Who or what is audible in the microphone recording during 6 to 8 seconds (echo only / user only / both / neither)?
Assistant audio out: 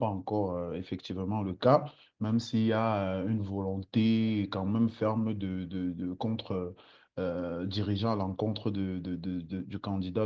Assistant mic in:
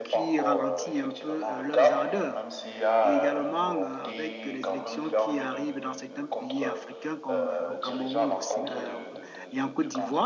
both